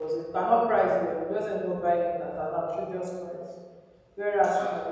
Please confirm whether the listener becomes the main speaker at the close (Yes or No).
No